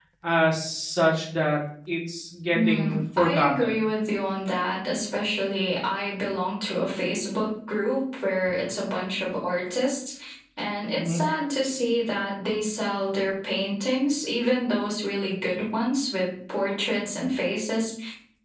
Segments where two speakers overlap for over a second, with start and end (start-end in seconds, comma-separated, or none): 2.5-3.8